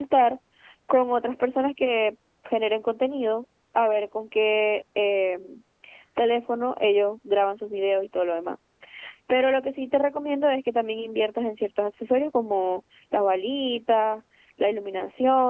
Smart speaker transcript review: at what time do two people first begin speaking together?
none

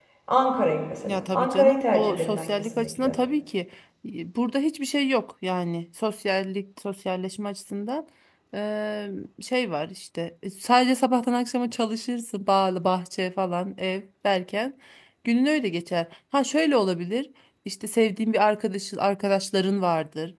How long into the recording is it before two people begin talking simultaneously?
1.1 s

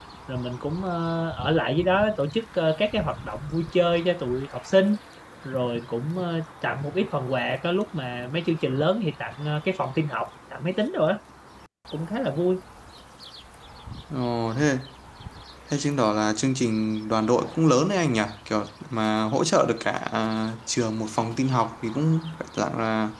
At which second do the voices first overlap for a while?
none

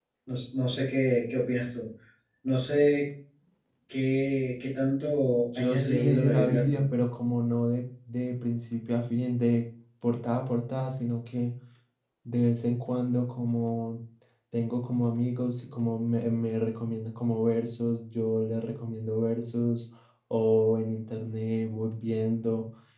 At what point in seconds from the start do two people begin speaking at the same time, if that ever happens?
5.5 s

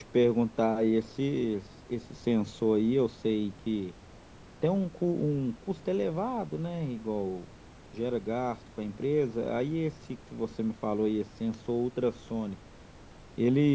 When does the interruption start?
none

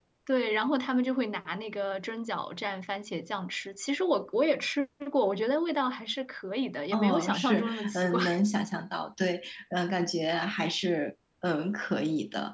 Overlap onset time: 6.9 s

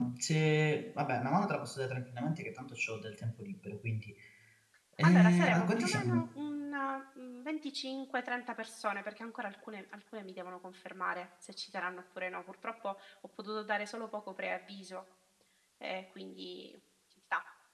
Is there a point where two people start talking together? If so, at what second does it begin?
5.0 s

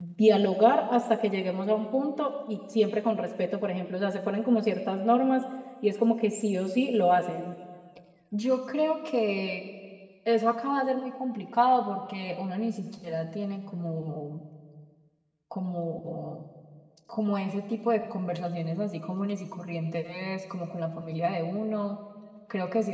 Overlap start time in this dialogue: none

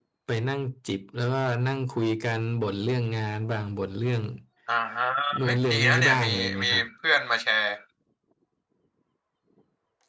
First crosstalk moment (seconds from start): 5.4 s

